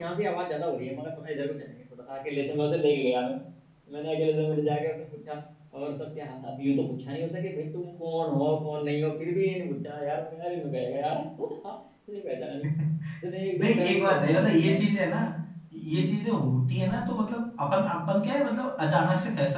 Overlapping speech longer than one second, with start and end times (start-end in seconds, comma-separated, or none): 13.6-14.8